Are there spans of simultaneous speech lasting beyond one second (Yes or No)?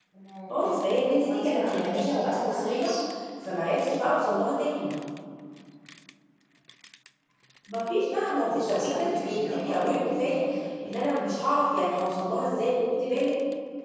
Yes